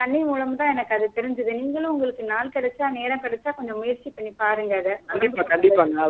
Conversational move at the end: taking over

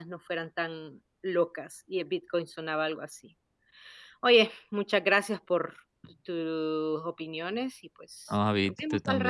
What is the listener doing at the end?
taking over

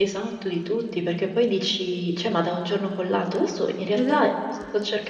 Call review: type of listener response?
listening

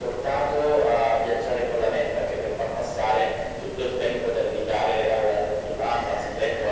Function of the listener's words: taking over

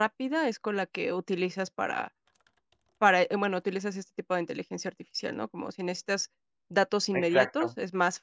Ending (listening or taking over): listening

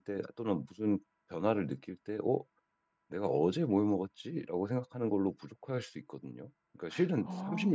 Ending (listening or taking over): listening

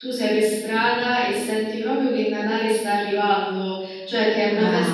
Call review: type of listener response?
listening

